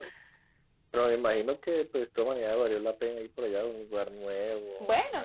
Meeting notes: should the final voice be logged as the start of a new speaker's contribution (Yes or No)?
Yes